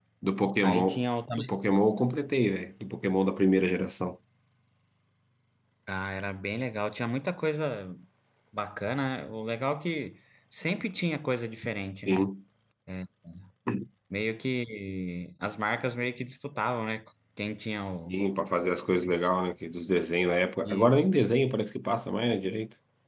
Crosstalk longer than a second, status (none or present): none